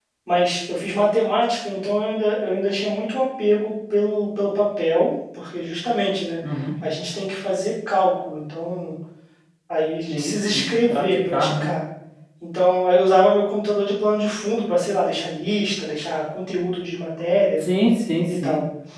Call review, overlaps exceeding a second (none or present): present